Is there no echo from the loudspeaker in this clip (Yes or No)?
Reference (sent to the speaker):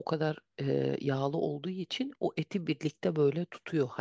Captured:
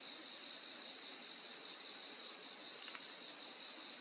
Yes